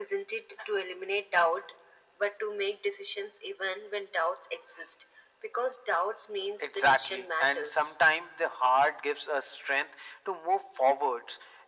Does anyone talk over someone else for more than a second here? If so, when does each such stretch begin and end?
6.6-7.9

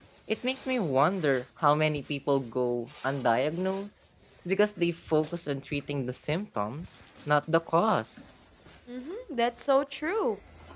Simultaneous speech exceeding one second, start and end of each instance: none

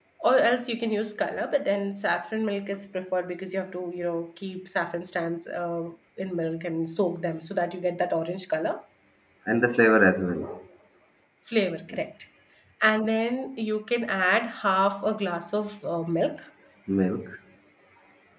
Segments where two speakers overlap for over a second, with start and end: none

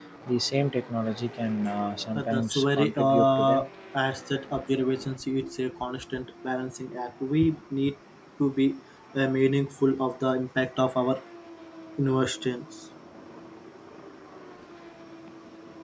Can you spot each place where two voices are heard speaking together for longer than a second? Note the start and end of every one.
2.1-3.6

